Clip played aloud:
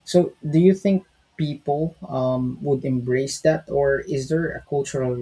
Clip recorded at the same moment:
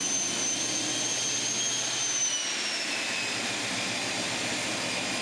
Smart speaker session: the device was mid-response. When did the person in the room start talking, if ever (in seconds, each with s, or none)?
none